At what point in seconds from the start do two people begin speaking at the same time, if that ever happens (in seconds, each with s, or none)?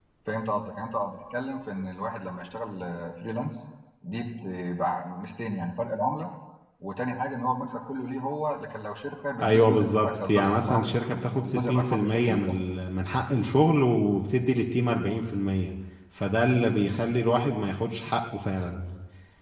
9.4 s